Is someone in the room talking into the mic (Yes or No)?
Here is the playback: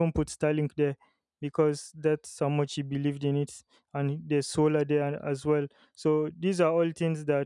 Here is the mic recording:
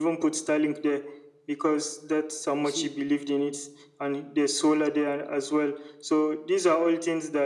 Yes